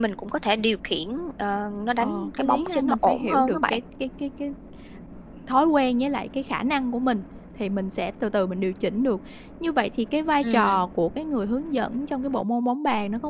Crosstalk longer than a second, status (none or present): present